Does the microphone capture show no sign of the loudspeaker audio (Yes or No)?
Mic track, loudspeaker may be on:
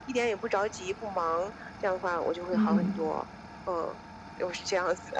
No